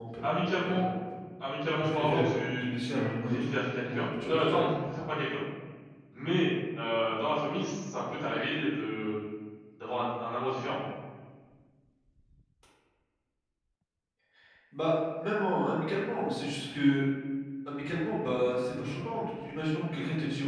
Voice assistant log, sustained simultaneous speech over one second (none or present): present